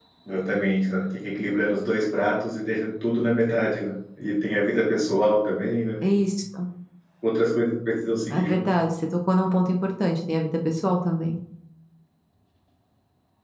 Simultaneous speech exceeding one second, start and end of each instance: none

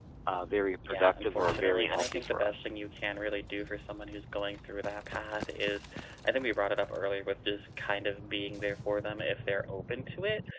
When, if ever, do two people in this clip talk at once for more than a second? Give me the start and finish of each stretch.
0.8-2.7

